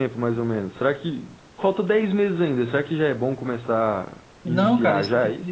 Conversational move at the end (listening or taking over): taking over